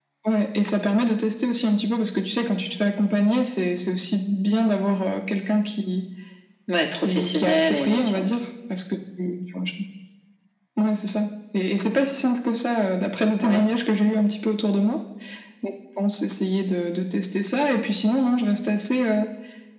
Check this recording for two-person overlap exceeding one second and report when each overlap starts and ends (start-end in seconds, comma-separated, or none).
6.9-8.3